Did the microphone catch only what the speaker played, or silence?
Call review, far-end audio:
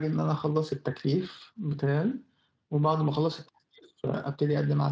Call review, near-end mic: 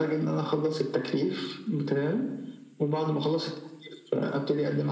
Yes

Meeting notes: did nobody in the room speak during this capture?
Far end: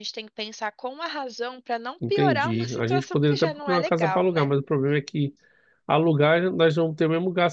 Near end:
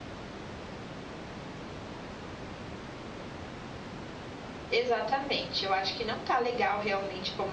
No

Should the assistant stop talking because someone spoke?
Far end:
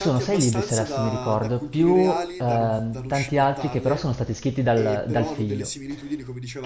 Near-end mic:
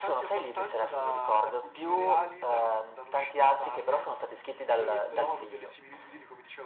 No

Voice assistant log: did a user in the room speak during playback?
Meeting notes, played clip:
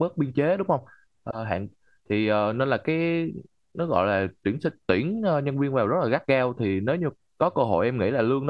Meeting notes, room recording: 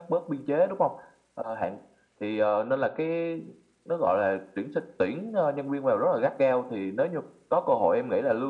No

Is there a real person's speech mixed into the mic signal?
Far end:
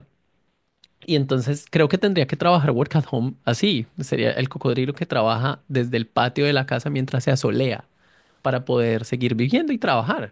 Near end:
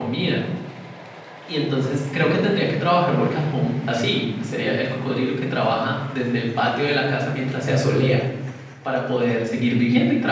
No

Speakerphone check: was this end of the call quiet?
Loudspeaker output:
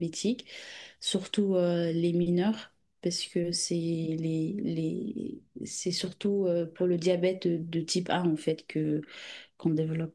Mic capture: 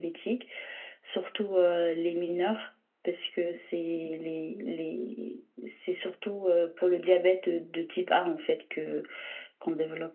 Yes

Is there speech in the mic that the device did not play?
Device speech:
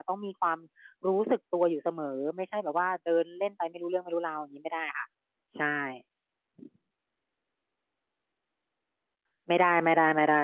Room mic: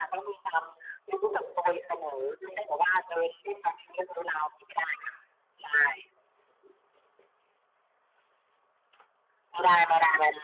No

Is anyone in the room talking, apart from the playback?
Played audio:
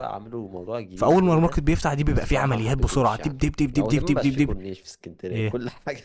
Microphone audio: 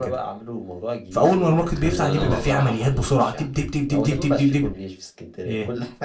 Yes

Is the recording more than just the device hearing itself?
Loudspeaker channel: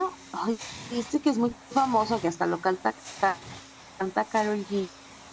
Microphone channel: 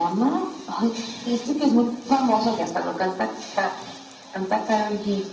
No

